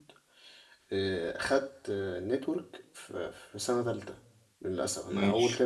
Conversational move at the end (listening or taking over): listening